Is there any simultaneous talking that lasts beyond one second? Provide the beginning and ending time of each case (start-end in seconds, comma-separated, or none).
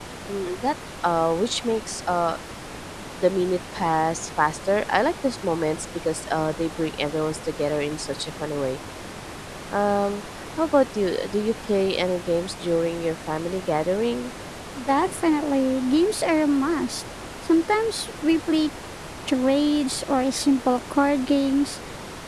none